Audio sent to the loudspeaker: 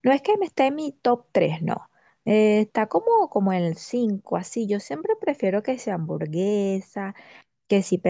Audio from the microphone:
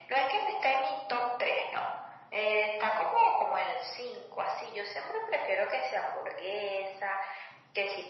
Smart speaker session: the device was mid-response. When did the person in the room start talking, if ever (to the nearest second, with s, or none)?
none